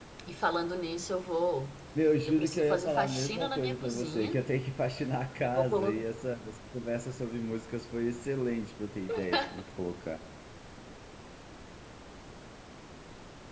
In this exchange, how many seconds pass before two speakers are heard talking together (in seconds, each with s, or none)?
2.3 s